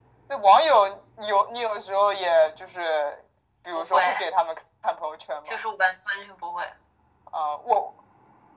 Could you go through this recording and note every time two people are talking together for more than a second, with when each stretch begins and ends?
none

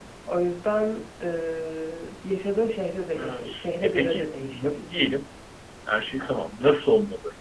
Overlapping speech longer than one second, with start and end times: 3.1-5.0

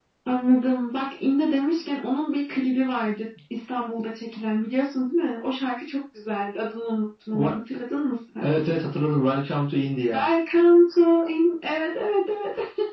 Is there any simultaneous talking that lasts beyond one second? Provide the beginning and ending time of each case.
none

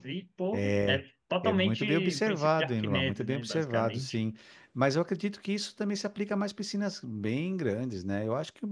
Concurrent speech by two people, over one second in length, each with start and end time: 1.4-4.2

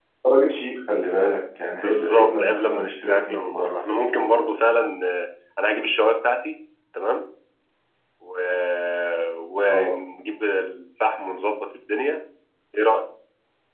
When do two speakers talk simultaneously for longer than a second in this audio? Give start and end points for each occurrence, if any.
1.8-4.3

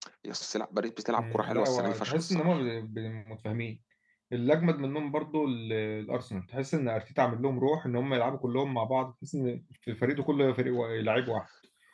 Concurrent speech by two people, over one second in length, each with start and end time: 1.2-2.6

